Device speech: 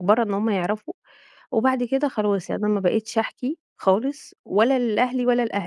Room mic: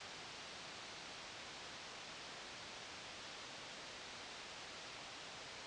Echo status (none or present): none